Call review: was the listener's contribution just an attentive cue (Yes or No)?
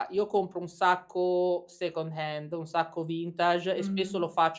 Yes